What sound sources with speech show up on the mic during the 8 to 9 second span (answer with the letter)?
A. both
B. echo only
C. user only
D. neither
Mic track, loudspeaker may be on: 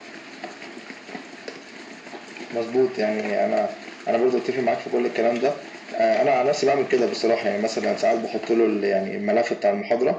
B